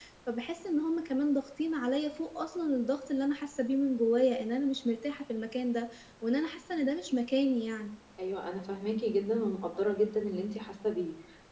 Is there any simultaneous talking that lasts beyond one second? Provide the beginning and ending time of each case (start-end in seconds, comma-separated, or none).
none